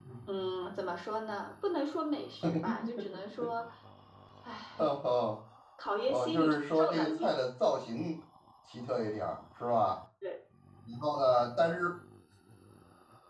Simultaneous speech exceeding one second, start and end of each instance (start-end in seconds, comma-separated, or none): 6.1-7.4